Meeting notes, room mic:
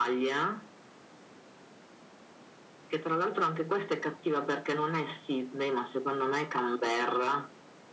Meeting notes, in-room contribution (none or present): none